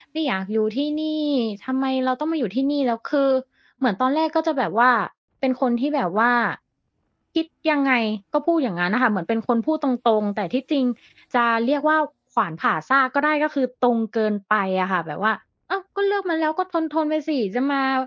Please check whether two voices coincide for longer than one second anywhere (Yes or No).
No